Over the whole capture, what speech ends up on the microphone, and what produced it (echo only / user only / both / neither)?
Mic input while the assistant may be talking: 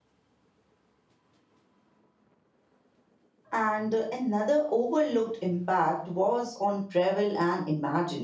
user only